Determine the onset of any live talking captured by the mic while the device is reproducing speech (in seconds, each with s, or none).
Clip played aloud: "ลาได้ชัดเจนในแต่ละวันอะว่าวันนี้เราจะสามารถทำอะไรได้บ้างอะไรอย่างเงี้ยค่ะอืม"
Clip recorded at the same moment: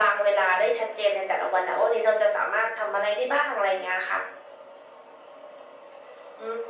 none